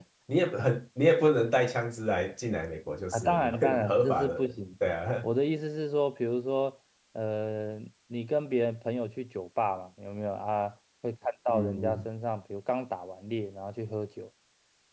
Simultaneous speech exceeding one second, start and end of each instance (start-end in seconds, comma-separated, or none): 3.1-4.5